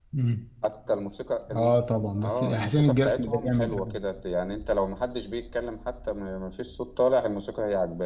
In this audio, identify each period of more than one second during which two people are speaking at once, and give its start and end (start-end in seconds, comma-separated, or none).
2.2-3.9